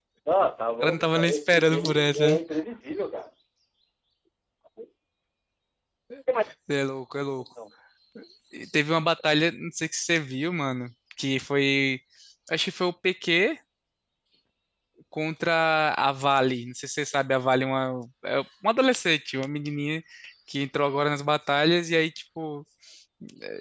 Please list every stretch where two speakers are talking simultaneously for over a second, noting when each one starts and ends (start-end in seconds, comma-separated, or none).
0.8-2.4